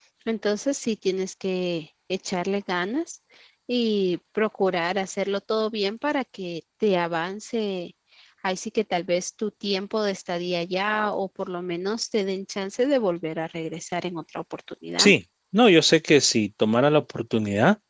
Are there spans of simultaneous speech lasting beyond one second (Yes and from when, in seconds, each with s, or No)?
No